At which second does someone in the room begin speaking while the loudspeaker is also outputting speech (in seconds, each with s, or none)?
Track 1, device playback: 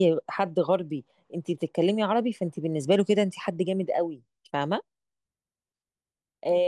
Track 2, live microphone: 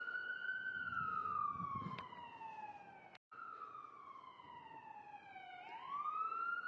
none